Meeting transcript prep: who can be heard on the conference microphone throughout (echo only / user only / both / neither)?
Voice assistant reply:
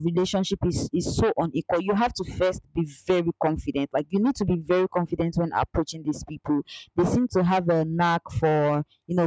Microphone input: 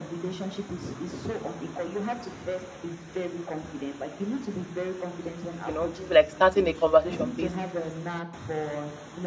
both